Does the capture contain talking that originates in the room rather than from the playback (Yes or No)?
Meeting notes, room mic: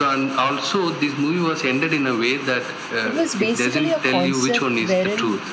Yes